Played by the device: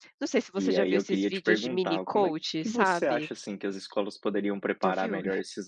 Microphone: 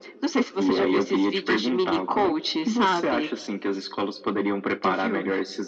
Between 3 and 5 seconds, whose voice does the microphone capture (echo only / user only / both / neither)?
echo only